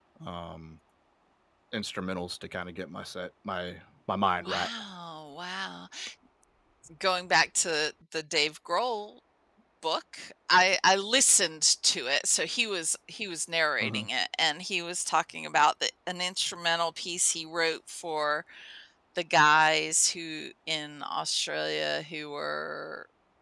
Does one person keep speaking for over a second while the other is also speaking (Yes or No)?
No